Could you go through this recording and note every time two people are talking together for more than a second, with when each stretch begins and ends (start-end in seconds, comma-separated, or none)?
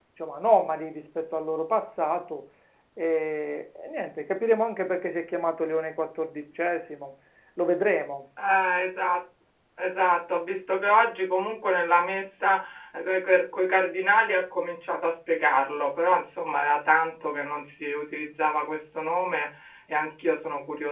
none